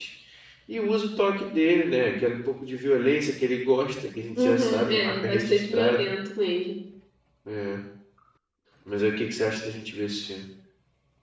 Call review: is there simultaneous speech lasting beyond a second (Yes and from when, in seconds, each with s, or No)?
Yes, from 4.3 s